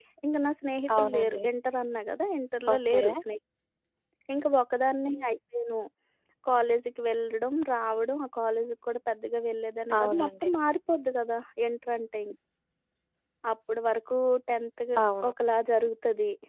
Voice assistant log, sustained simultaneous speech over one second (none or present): none